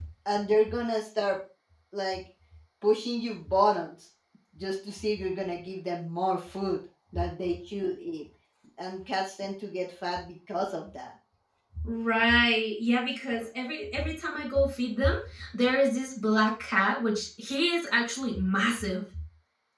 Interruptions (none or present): none